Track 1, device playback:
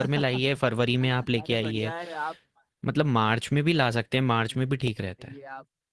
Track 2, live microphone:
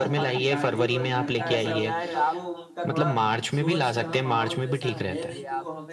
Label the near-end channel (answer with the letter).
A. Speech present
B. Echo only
A